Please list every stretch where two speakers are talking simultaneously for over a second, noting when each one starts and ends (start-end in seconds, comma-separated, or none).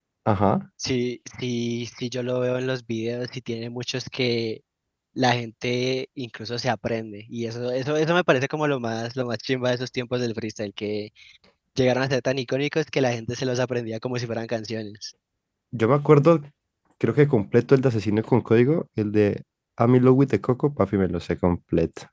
none